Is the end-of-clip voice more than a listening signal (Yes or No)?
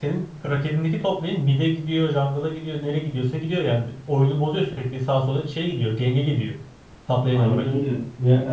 Yes